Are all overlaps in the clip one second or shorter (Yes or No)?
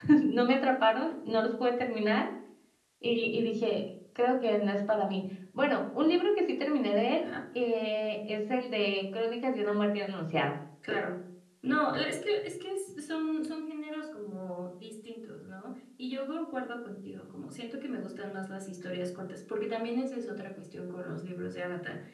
Yes